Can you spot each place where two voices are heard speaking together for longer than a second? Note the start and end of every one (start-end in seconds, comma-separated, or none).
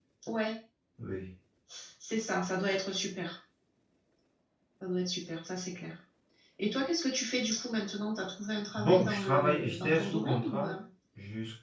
8.8-10.7